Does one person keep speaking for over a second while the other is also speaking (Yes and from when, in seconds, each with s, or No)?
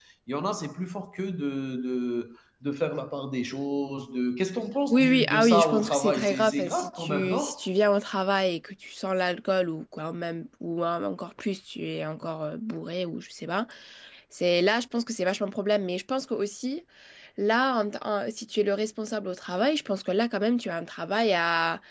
Yes, from 4.9 s